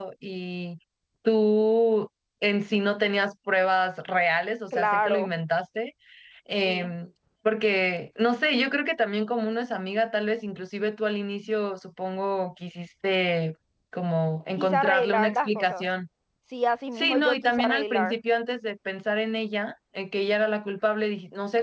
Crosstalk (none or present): present